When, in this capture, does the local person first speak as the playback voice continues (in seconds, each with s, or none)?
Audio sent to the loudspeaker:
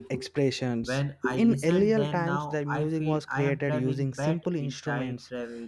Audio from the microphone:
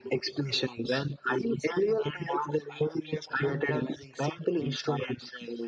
none